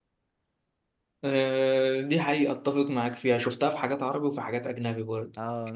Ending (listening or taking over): taking over